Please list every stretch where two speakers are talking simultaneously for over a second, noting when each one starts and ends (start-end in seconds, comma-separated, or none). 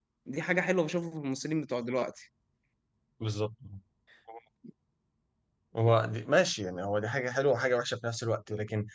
none